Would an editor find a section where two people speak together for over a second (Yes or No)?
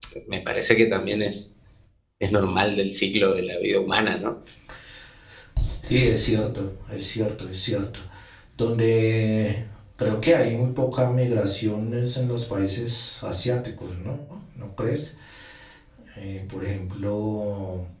No